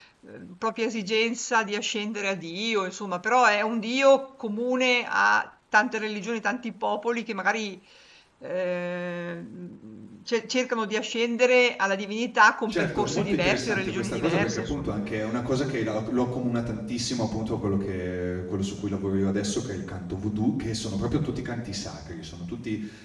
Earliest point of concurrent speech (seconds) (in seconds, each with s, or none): 12.7 s